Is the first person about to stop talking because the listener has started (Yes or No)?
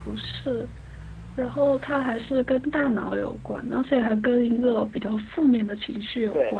Yes